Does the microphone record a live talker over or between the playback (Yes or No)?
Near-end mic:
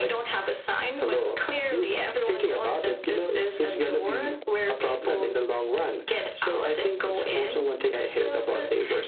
No